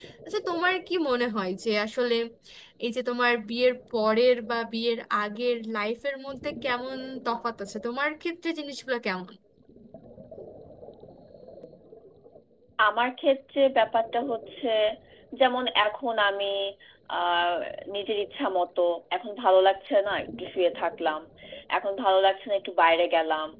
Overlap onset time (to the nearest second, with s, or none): none